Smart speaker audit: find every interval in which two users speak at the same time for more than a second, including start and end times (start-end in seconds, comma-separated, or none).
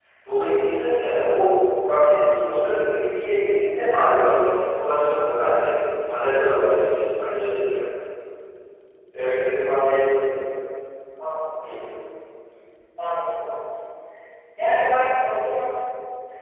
none